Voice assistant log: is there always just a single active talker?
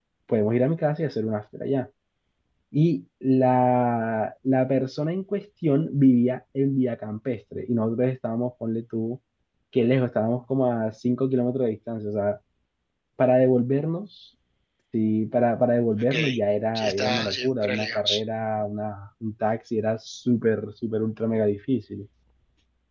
No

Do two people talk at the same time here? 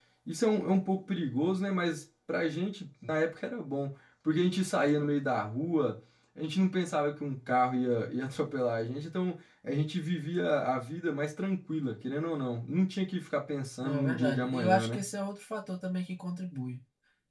Yes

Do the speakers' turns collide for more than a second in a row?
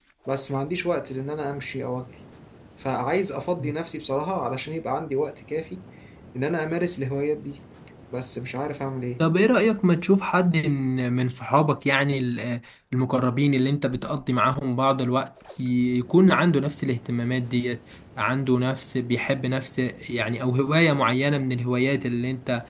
No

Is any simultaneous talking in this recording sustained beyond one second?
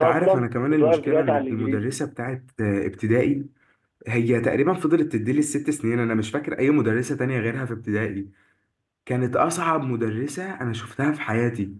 Yes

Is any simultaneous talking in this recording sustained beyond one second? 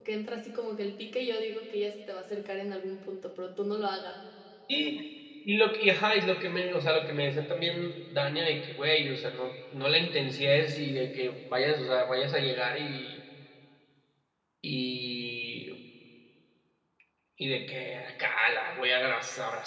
No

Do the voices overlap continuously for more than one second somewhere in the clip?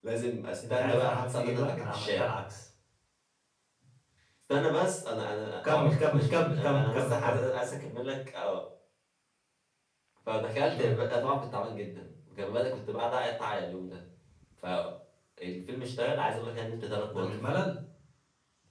Yes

